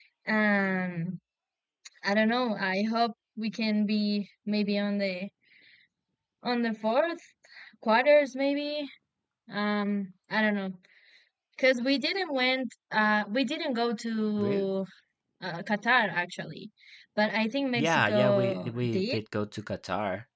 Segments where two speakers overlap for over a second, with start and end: 17.8-19.2

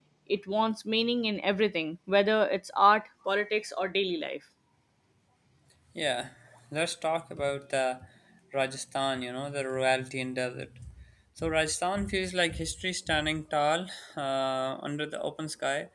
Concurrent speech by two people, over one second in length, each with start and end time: none

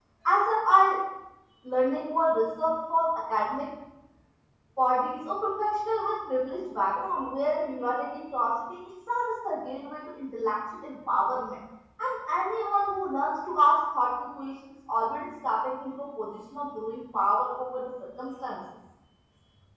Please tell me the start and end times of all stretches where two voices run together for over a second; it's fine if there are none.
none

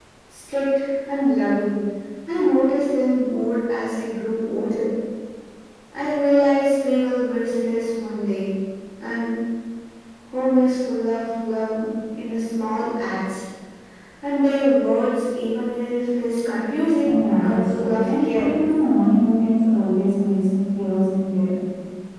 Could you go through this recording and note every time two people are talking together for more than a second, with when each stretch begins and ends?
17.0-18.5

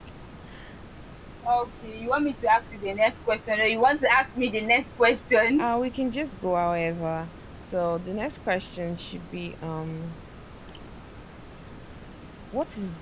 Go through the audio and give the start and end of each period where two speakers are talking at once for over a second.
none

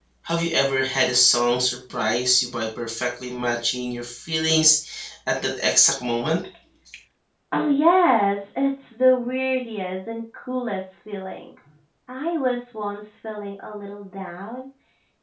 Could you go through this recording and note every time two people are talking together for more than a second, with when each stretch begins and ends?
none

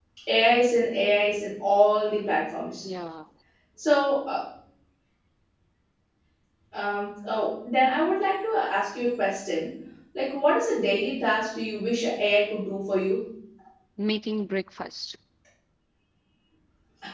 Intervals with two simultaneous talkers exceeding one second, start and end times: none

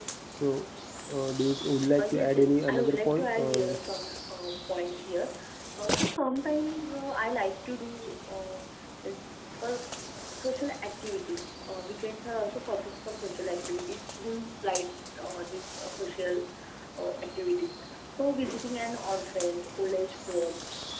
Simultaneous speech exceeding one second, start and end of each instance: 2.0-3.8

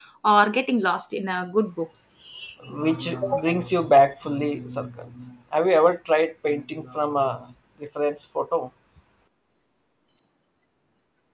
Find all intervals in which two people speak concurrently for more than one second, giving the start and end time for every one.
none

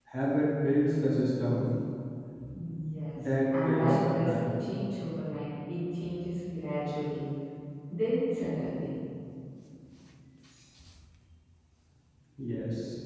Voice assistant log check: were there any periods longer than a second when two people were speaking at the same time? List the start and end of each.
3.1-4.5

